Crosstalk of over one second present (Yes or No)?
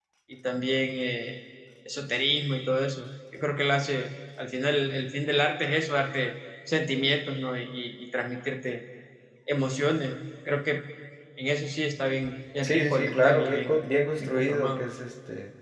Yes